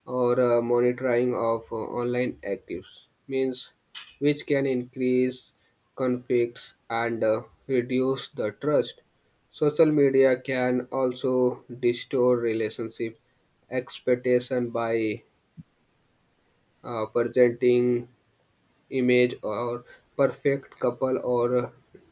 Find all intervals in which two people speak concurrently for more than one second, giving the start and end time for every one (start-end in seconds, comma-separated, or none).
none